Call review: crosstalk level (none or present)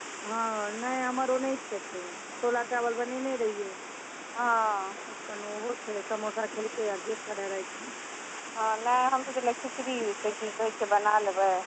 none